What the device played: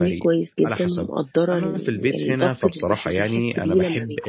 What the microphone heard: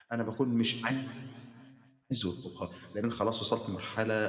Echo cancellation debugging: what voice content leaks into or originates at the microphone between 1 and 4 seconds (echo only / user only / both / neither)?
user only